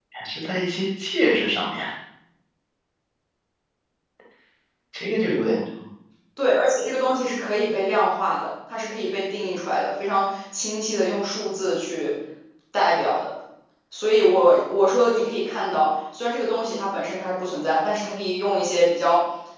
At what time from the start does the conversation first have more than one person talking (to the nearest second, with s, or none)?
none